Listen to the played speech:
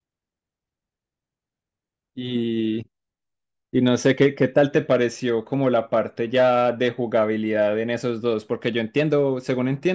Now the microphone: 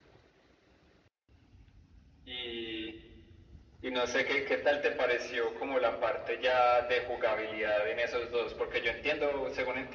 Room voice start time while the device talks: none

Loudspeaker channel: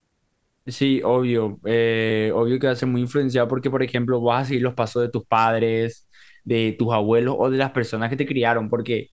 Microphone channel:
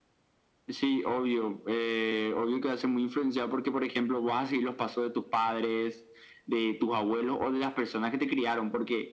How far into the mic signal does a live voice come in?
none

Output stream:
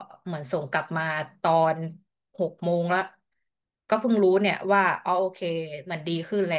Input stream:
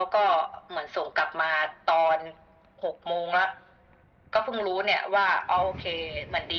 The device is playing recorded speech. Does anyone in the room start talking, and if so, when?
none

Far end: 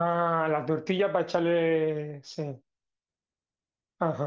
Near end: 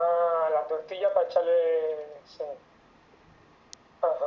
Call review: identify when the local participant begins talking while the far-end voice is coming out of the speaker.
none

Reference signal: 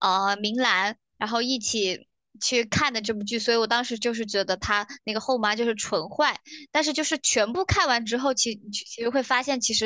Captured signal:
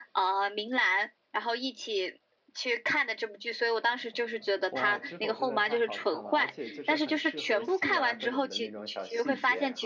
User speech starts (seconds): 4.7 s

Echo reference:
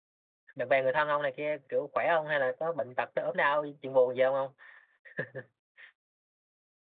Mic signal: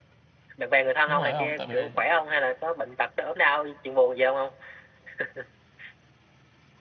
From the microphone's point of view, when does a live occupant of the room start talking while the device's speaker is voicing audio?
1.0 s

